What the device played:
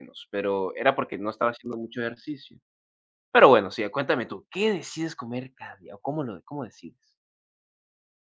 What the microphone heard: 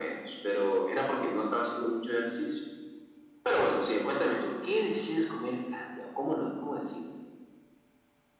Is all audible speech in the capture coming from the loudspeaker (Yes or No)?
Yes